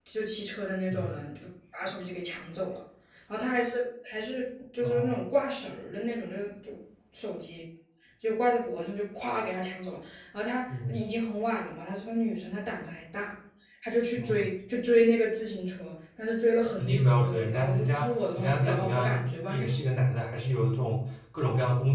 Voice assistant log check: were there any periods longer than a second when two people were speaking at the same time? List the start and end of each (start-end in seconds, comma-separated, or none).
16.8-19.6